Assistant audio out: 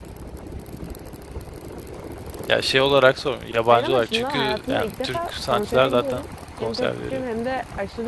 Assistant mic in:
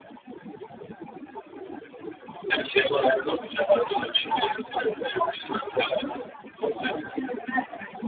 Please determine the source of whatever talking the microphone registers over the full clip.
echo only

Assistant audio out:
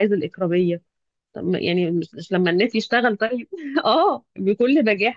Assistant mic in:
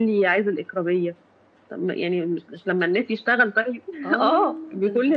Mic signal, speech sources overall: both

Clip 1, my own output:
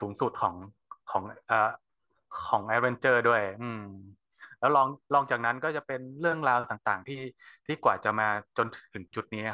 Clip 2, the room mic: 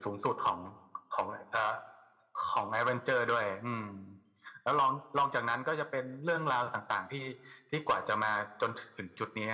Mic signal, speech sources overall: echo only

